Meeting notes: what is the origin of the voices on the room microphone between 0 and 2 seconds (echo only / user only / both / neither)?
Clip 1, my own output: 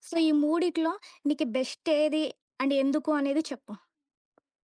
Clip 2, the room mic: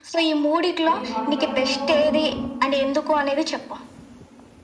both